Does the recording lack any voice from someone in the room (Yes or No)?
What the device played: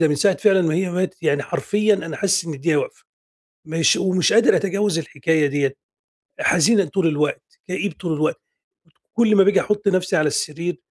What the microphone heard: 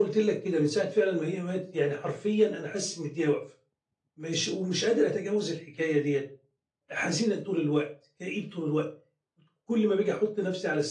Yes